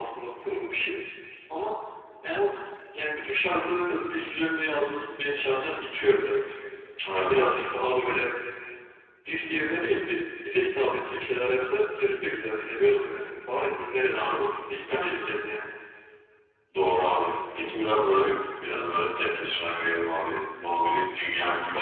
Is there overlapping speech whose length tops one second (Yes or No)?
No